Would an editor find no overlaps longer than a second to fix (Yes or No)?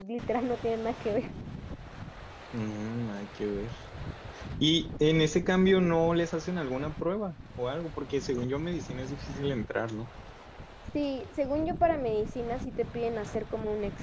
Yes